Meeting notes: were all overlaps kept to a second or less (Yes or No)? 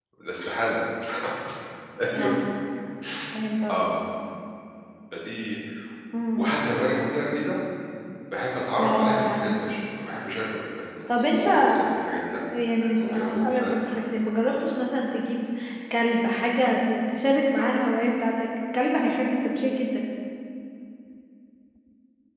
No